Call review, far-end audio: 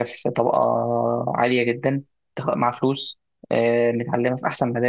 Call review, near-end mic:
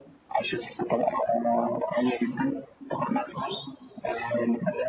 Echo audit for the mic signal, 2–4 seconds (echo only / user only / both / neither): echo only